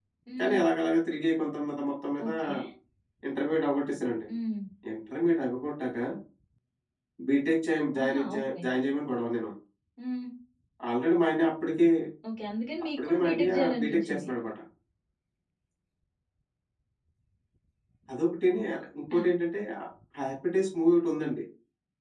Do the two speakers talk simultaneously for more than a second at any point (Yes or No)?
Yes